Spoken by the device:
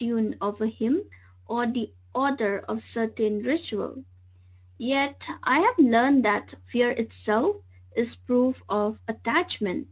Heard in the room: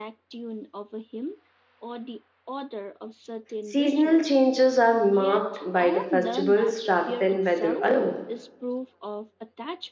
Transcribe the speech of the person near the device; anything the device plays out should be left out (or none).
Seasonal changes are marked by the festivals rather than weather alone.